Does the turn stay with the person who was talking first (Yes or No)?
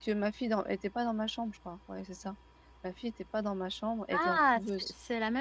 No